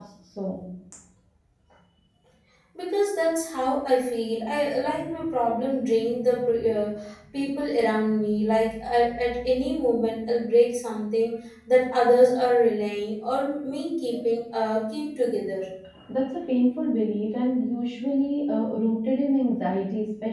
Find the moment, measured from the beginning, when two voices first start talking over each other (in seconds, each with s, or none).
none